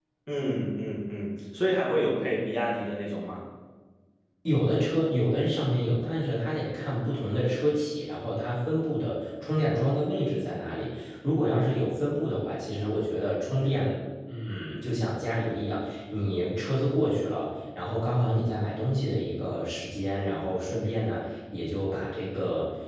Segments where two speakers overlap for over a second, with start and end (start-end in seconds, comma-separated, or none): none